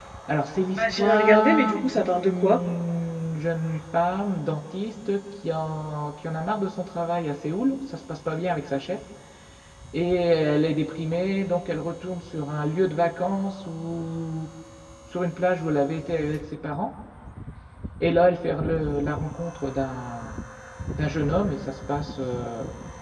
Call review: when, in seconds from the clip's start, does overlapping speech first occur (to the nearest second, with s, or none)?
1 s